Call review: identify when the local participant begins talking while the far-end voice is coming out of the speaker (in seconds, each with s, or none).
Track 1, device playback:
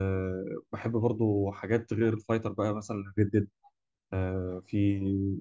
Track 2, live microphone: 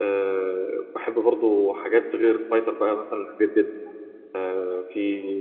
none